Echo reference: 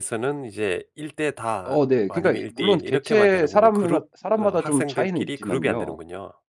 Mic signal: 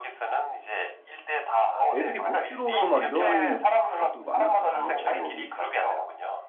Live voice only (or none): 애들이 못 들어오고 막 이런 것도 많았거든요, 어려움이.